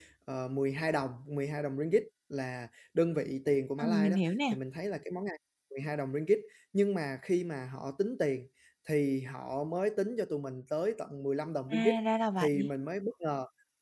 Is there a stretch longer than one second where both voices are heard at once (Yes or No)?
No